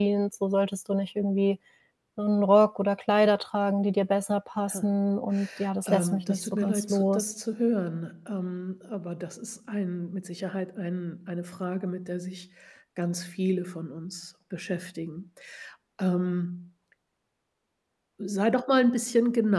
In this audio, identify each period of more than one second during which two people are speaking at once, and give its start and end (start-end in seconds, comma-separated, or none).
5.9-7.3